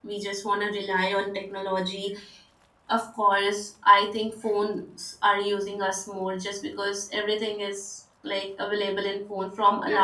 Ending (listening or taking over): taking over